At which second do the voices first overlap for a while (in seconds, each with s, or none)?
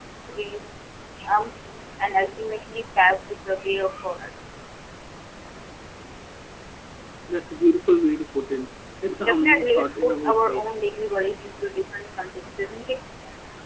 9.2 s